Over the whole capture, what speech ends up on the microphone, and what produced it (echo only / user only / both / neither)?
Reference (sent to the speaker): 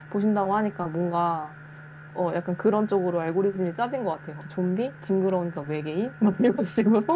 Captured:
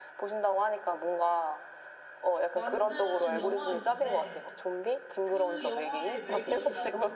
both